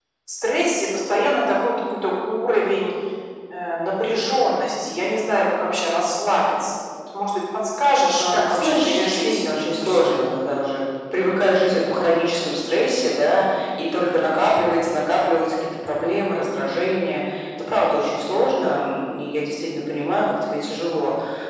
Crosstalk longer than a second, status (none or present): present